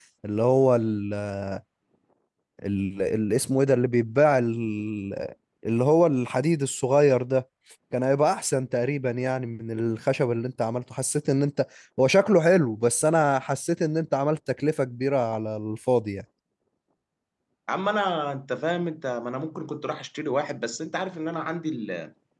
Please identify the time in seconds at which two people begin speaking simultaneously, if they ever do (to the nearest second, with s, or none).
none